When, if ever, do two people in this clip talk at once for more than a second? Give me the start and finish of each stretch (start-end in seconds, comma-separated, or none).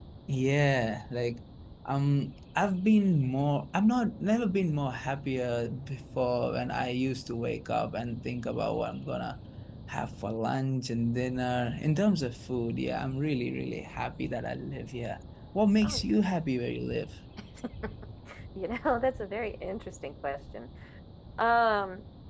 none